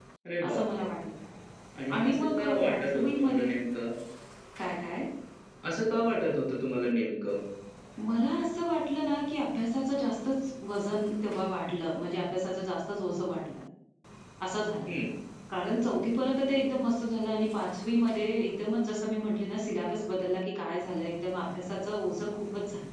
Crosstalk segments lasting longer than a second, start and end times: 2.0-3.5

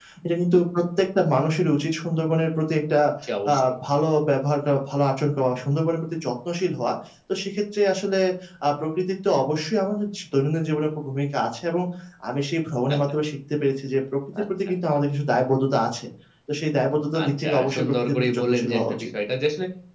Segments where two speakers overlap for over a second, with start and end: 17.2-19.1

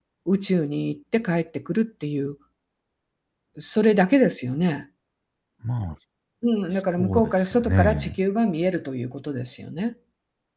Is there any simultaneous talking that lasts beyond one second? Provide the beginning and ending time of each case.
6.7-8.2

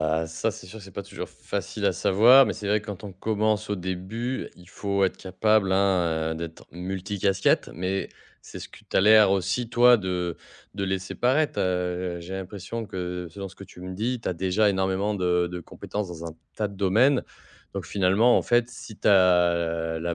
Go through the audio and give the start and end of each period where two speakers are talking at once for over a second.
none

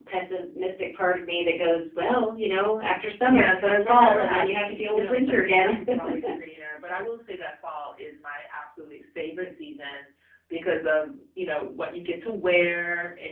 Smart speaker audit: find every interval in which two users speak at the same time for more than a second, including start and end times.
3.3-5.7

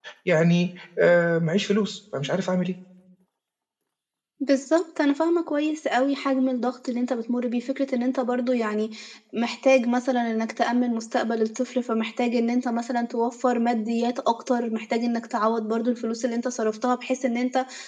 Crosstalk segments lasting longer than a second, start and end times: none

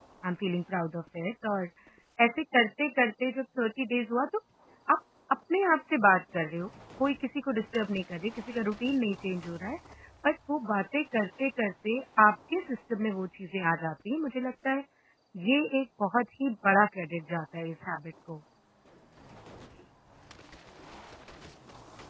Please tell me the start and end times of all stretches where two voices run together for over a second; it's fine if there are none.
none

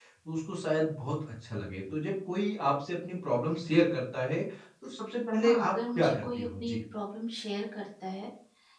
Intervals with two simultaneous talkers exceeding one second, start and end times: 5.4-6.8

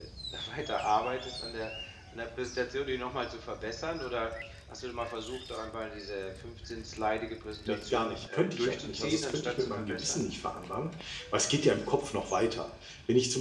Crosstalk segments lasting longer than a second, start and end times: 7.7-10.2

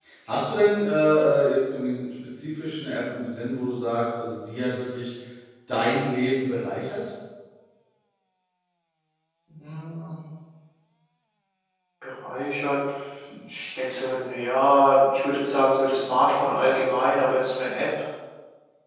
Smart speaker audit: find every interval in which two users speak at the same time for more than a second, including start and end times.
none

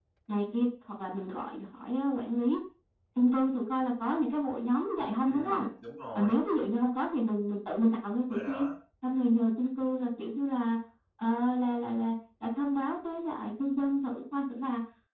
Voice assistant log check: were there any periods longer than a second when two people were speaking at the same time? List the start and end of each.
none

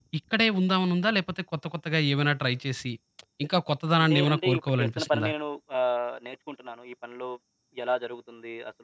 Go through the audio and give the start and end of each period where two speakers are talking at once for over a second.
4.0-5.3

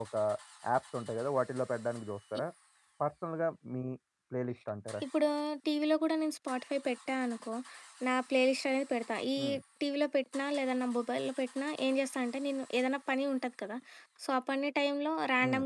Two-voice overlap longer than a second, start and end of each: none

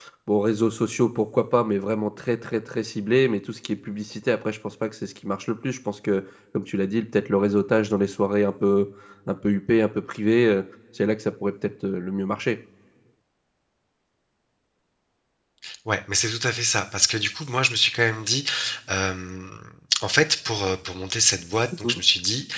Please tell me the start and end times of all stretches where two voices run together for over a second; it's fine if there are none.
none

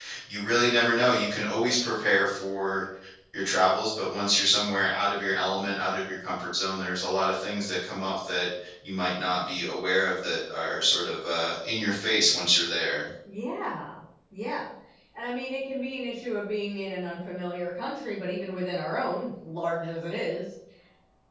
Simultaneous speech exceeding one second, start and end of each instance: none

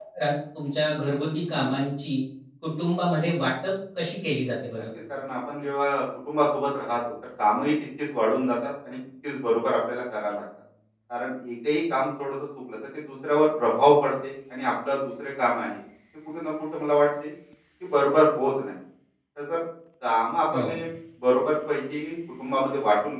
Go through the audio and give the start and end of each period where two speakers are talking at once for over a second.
none

